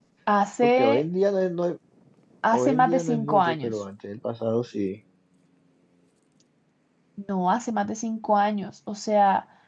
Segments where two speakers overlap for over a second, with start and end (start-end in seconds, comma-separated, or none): 2.5-3.7